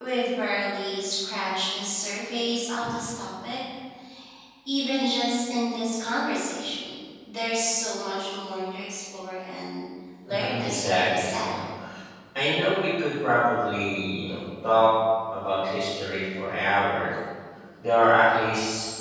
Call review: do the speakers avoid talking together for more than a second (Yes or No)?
No